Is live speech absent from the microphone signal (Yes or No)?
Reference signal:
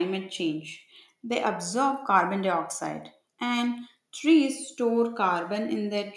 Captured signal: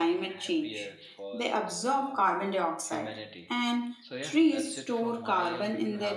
No